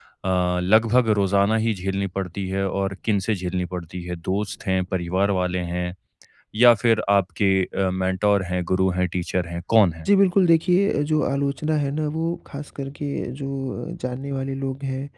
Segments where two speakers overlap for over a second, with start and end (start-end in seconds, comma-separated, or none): none